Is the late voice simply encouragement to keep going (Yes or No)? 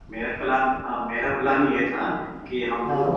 Yes